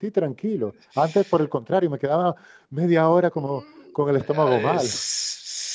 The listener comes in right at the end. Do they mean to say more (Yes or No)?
Yes